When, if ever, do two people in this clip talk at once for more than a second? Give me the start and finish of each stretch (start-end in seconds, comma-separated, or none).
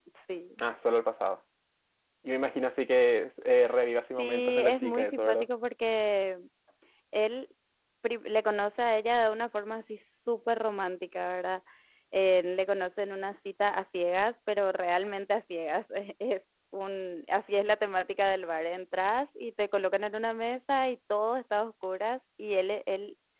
4.0-5.5